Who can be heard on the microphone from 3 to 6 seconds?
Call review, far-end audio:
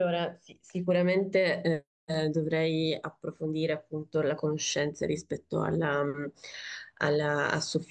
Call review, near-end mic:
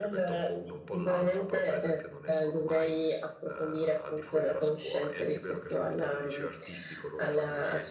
both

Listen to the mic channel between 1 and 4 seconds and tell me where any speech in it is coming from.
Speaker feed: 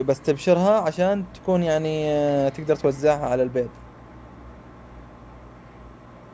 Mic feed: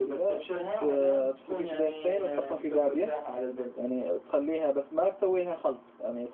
both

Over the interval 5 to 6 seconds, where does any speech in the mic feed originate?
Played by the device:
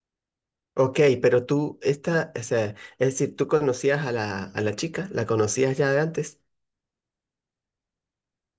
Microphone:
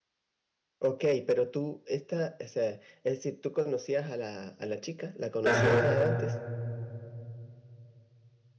both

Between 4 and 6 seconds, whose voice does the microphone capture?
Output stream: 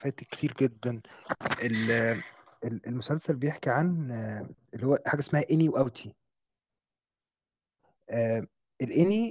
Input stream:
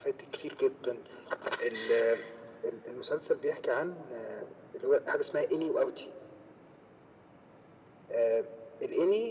echo only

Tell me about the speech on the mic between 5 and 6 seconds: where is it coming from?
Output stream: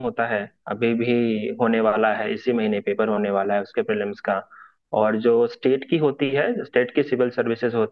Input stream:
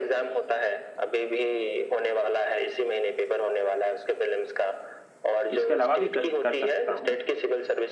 both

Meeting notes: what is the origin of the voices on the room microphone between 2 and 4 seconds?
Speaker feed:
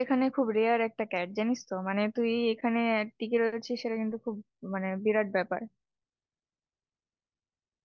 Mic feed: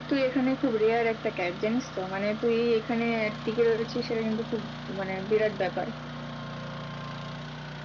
echo only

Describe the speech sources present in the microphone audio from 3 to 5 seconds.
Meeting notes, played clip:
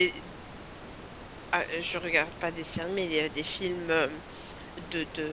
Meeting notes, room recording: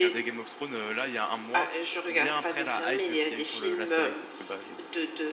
both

